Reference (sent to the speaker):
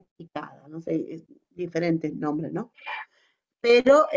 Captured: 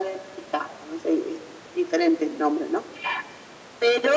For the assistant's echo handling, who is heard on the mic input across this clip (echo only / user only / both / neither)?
echo only